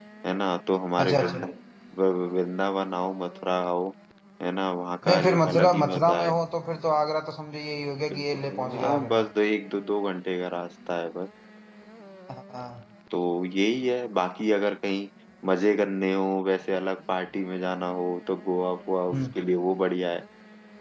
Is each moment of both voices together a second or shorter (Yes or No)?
No